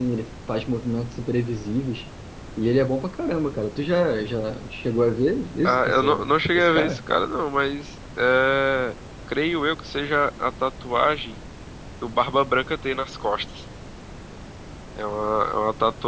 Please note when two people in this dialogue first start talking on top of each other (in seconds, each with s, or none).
5.6 s